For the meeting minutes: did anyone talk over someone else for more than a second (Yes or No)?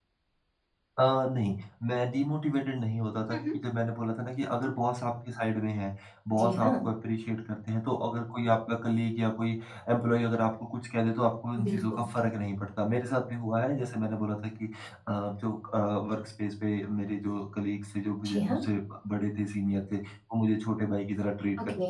No